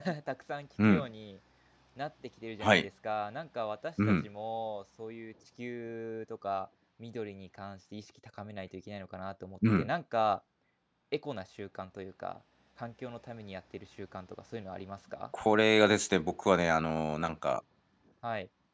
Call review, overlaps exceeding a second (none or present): none